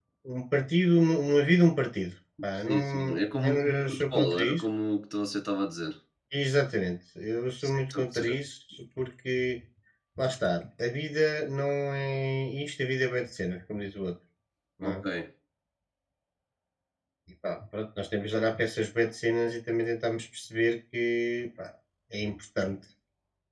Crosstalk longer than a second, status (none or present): present